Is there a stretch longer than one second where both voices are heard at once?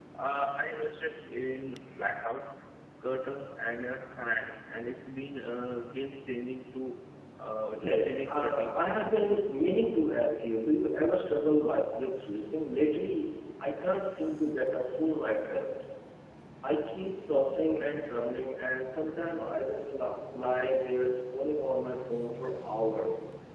Yes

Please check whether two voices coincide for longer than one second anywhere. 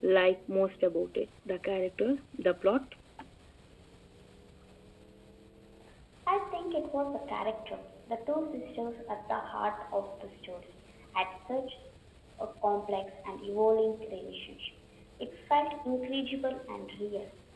No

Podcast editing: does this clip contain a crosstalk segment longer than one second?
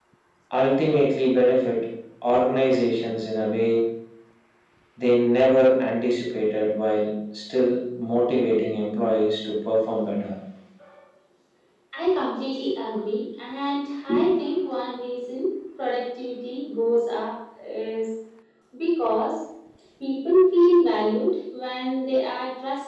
No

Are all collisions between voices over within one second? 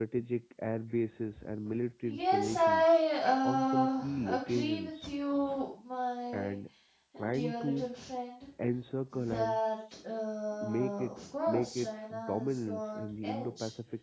No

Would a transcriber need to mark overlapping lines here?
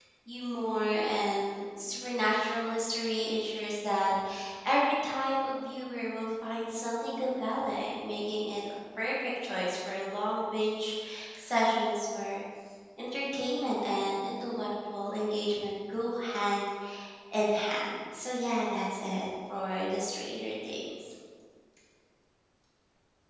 No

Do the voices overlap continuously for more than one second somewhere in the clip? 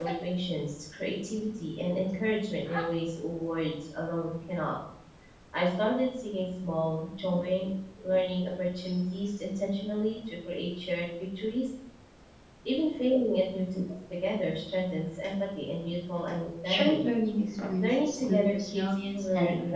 Yes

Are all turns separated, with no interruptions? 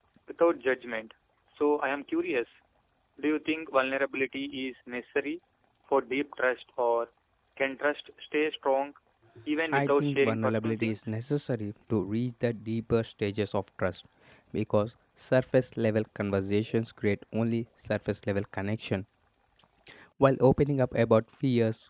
No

